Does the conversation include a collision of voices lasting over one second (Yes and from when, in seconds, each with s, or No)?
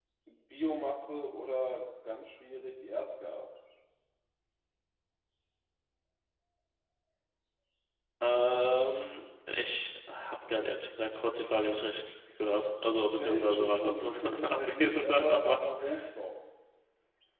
Yes, from 12.8 s